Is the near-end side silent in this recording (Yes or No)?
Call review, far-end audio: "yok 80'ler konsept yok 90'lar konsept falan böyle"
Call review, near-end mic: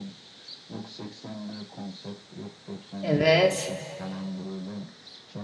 No